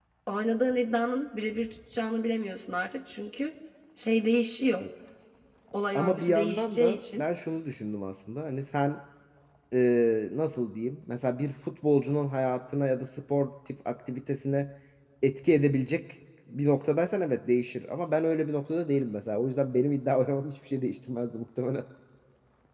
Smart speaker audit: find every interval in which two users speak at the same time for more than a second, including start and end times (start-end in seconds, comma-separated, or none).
6.0-7.2